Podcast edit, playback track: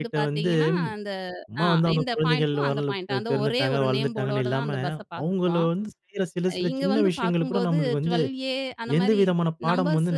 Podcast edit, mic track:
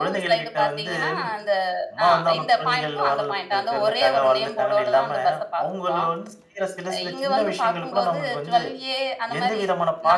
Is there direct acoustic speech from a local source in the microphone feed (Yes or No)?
No